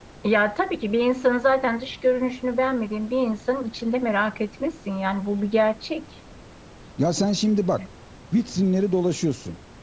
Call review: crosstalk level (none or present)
none